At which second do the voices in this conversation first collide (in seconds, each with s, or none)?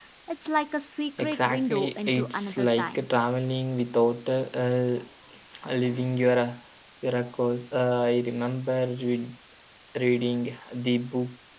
1.2 s